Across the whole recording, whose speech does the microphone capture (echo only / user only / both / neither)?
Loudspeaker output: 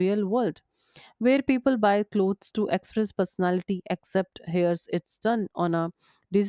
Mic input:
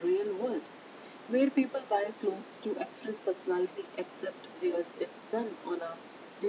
echo only